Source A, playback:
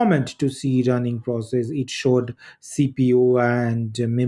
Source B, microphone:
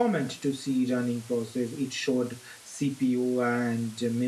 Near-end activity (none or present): none